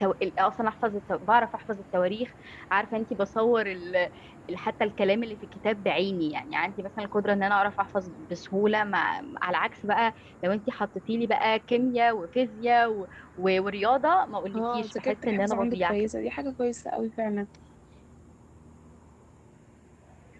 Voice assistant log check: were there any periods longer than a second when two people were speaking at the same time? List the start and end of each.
14.5-16.1

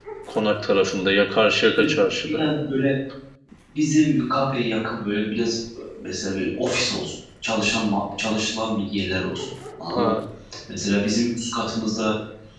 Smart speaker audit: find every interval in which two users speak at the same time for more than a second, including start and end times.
none

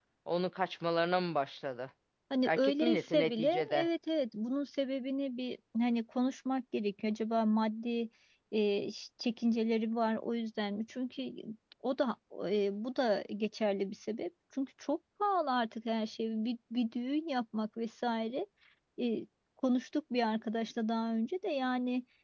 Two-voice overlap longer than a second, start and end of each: 2.5-3.9

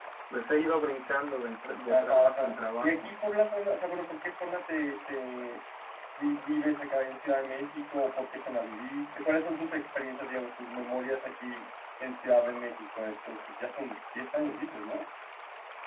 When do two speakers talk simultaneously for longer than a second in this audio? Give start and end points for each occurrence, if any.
1.9-3.1

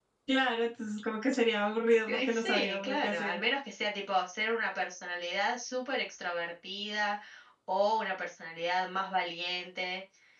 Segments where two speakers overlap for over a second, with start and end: 2.1-3.4

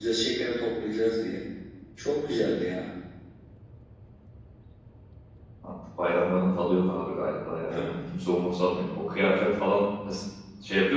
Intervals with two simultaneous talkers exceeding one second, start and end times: none

